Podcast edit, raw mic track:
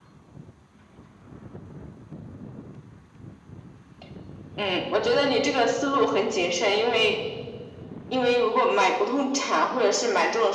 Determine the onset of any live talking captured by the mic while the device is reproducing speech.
none

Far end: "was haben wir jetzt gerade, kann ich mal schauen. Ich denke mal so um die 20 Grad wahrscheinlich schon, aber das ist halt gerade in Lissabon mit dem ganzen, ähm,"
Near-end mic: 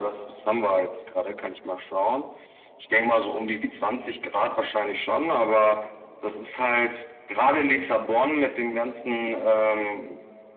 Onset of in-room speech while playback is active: none

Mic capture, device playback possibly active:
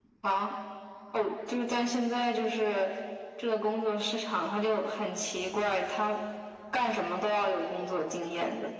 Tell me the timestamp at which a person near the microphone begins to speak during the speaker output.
none

